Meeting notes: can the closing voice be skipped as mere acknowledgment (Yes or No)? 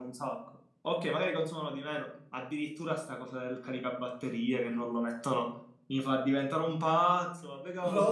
Yes